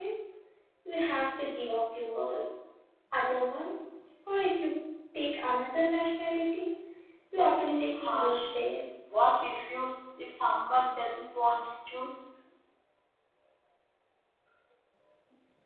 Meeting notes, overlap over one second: present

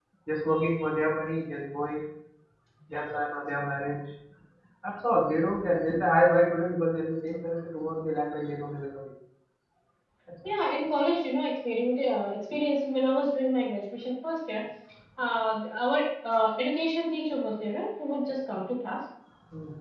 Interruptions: none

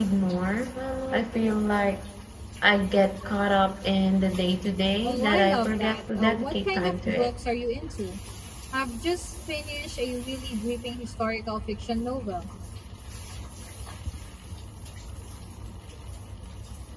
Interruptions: present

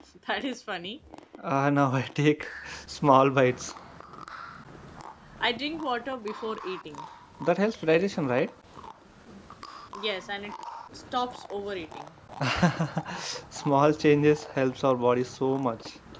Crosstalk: none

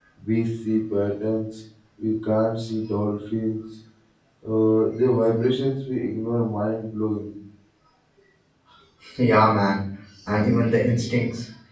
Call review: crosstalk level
none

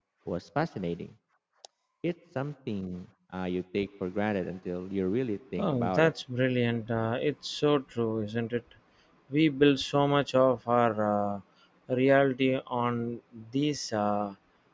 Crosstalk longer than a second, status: none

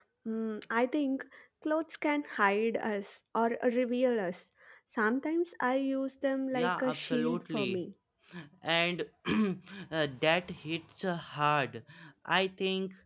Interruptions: present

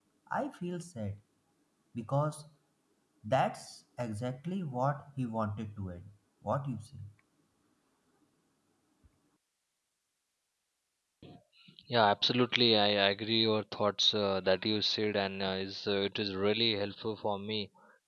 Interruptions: none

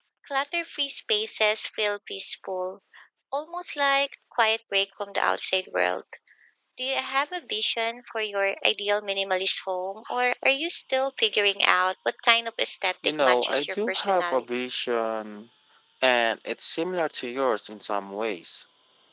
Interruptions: present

